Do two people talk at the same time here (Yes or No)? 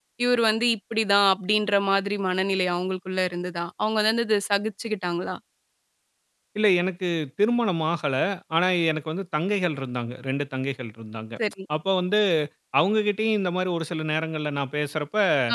No